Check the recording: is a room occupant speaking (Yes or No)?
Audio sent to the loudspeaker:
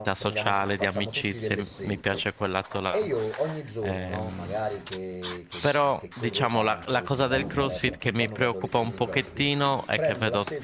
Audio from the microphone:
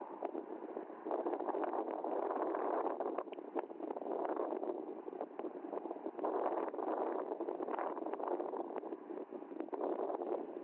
No